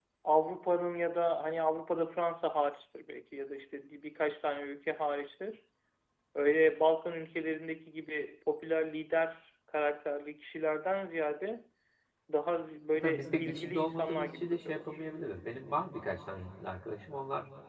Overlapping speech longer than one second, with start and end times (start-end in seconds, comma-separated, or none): 12.9-14.9